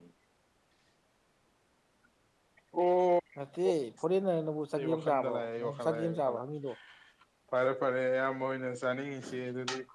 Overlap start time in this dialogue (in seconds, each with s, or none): 4.7 s